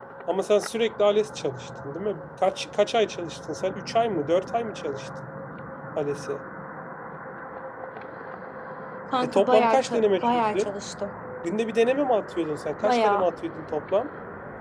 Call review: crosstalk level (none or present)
present